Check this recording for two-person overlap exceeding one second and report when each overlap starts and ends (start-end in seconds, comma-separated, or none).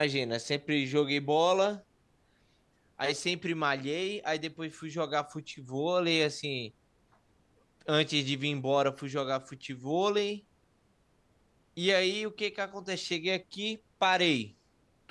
none